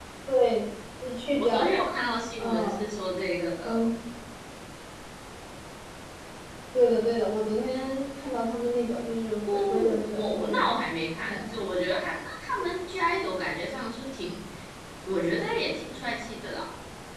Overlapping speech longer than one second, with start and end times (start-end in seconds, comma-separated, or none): 9.5-10.8